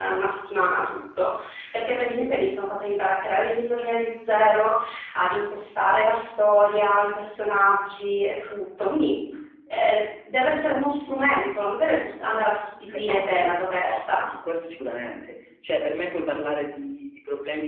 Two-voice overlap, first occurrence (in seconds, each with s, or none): 12.9 s